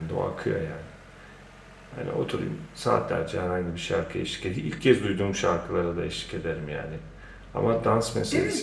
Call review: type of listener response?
taking over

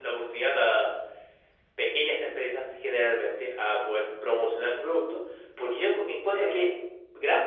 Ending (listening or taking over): listening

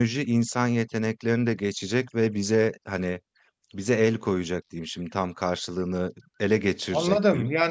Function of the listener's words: taking over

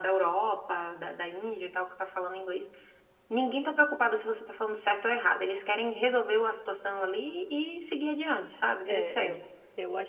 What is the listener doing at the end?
taking over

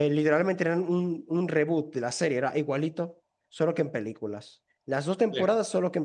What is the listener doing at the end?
listening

